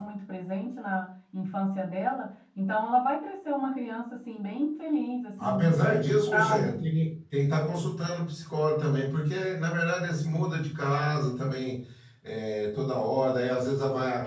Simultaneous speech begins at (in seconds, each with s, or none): 5.4 s